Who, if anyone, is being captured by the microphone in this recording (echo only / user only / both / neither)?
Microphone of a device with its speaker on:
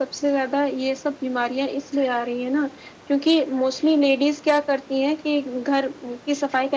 echo only